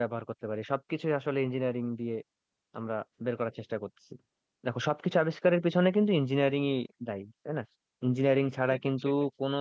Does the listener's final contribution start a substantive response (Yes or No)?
No